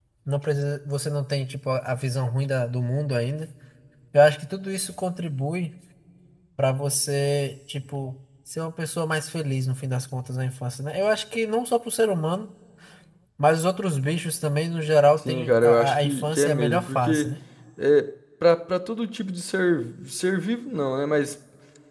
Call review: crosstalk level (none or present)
present